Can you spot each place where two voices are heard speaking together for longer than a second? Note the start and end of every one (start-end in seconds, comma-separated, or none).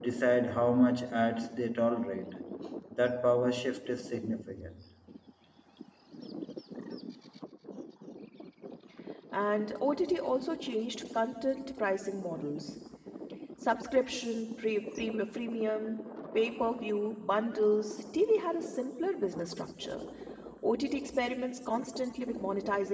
none